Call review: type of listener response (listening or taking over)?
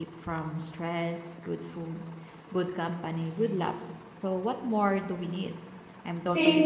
taking over